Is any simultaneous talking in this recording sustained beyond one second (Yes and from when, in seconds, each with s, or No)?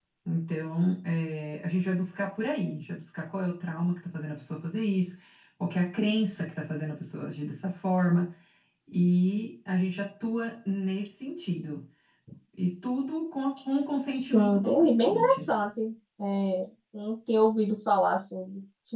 Yes, from 14.1 s